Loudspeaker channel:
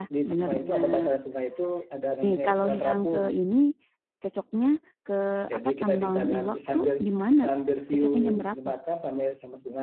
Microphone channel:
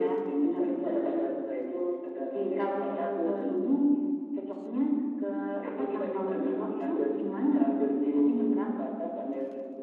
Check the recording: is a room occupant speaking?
No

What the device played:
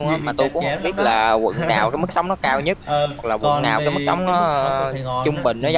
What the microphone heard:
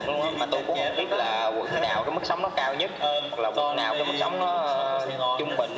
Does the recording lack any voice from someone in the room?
Yes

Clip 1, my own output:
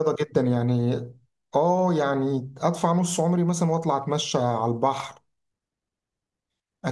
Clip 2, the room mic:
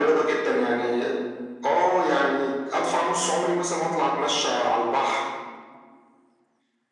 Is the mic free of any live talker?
Yes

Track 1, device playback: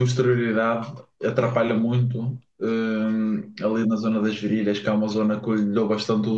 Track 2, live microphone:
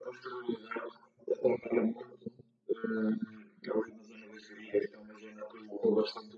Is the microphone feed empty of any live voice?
Yes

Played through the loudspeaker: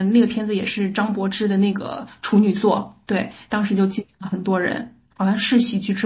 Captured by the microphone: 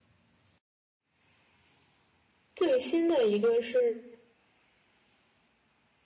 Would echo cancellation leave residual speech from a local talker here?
Yes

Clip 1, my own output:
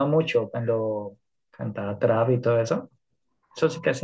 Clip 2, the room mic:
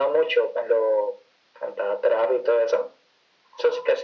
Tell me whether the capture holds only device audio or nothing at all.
Yes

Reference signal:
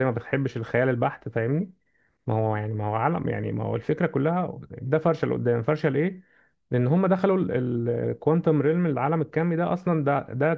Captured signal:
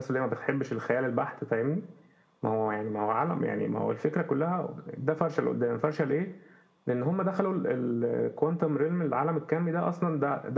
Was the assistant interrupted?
No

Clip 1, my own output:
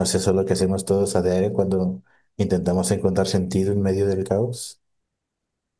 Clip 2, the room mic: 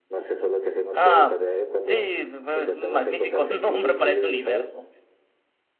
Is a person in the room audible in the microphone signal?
Yes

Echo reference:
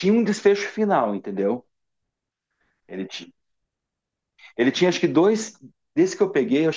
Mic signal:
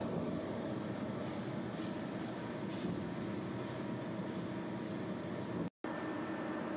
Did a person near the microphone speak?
No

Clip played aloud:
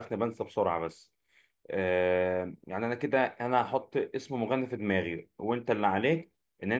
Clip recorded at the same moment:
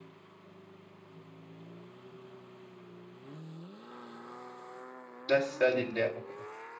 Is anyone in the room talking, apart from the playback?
Yes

